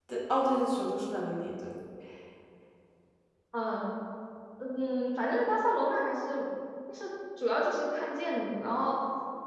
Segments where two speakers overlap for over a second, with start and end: none

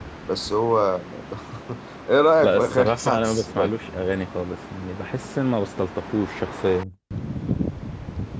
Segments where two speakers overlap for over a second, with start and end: 2.4-3.7

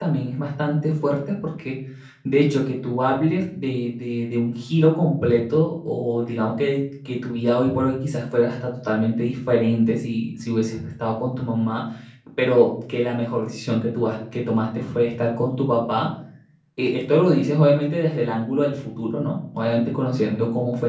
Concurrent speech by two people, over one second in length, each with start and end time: none

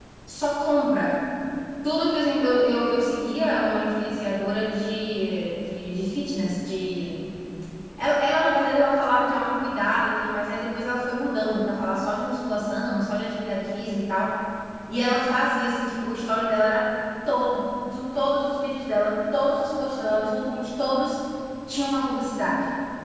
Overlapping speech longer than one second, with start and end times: none

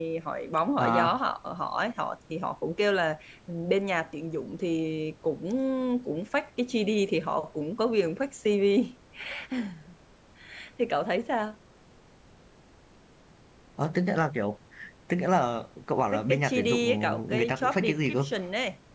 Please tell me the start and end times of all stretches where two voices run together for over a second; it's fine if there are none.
16.1-18.2

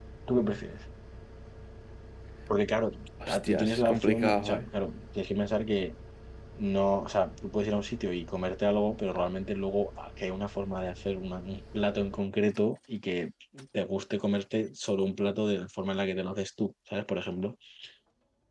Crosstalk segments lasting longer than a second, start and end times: 3.3-4.7

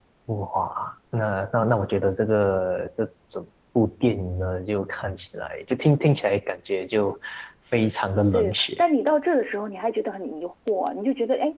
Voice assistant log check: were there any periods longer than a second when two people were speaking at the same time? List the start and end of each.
none

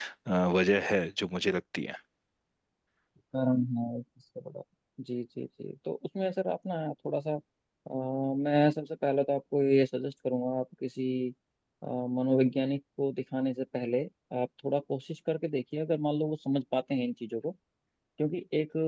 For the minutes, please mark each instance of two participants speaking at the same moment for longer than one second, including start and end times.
none

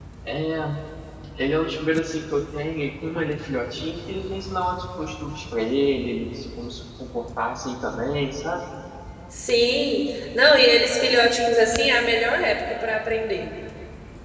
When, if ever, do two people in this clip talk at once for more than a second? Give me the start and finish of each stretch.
none

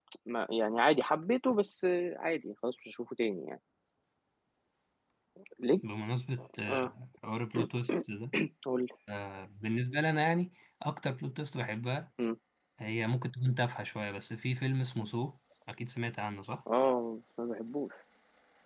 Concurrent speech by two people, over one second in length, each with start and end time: none

